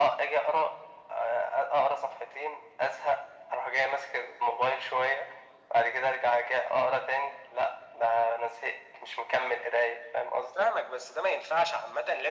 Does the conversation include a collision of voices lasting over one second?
No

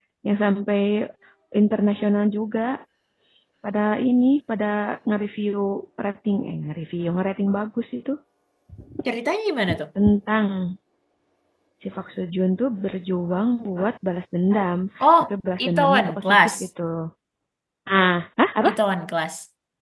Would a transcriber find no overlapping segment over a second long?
No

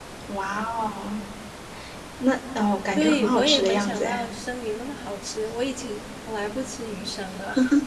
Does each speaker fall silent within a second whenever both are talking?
No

